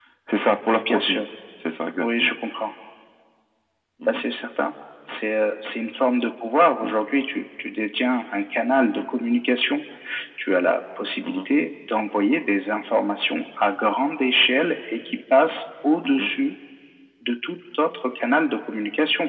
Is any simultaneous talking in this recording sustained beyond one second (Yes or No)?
No